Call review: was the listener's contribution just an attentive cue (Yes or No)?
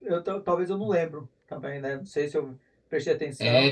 No